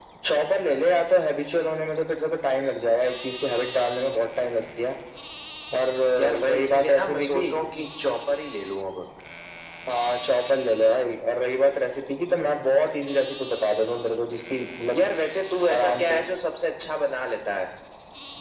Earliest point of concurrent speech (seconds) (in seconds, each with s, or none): 6.2 s